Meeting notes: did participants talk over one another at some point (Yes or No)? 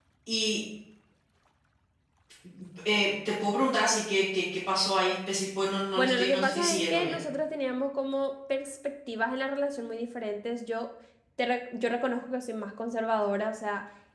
Yes